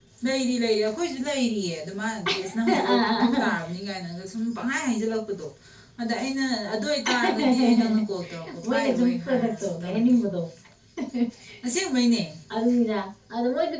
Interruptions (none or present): present